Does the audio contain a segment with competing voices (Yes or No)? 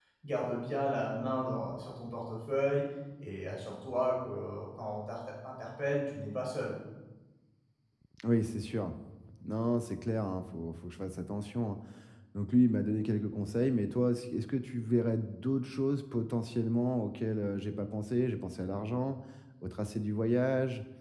No